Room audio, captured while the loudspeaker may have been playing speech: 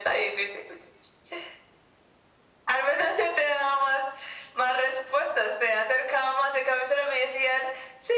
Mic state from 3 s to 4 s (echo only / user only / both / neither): echo only